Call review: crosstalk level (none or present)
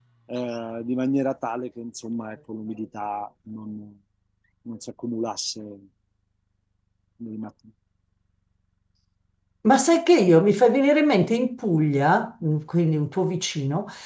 none